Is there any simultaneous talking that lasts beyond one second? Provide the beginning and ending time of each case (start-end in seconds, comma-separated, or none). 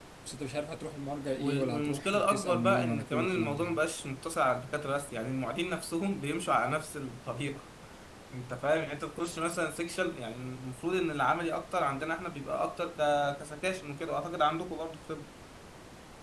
1.4-3.8